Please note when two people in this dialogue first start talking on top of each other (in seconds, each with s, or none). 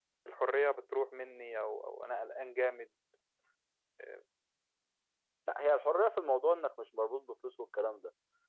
none